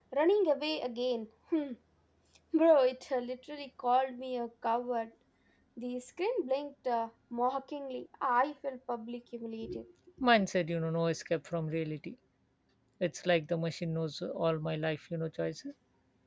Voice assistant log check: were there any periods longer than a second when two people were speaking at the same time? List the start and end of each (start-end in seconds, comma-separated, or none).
none